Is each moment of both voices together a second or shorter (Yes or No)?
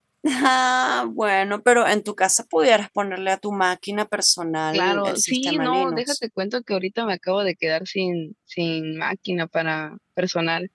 No